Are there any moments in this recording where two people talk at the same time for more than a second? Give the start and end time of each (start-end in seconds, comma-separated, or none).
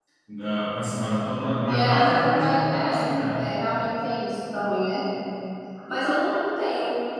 1.7-3.4